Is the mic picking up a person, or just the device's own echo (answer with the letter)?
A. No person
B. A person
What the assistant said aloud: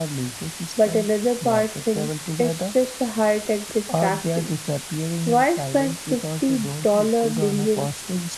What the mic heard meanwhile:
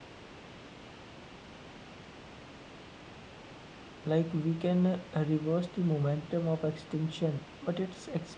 B